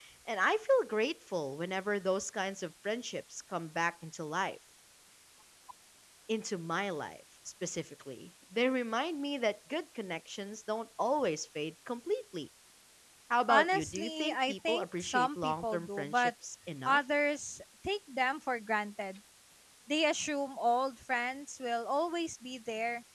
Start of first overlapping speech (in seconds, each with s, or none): 13.5 s